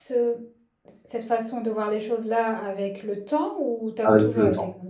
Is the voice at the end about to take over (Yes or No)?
Yes